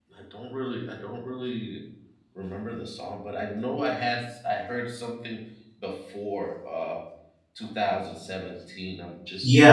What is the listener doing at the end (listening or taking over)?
taking over